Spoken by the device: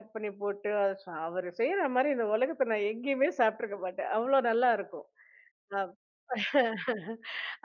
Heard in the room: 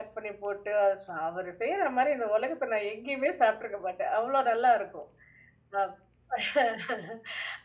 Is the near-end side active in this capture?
No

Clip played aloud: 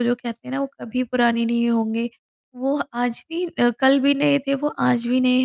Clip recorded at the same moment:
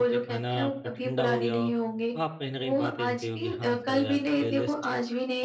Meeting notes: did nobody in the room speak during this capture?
No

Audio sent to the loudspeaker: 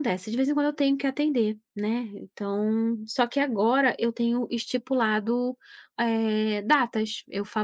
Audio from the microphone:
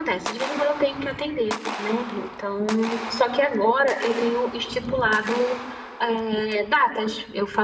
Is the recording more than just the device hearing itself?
No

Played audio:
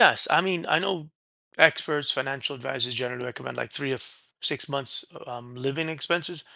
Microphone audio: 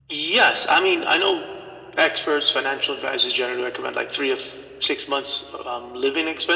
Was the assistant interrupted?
No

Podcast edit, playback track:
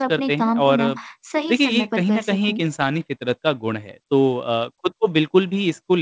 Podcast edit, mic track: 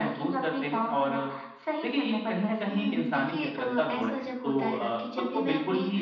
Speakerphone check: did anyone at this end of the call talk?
Yes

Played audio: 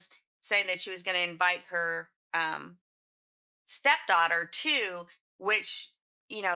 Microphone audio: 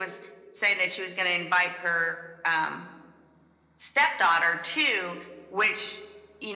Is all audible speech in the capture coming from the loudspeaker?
Yes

